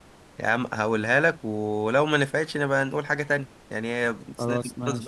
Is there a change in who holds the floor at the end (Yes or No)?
No